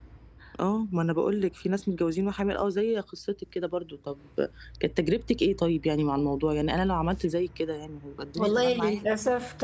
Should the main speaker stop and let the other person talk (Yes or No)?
Yes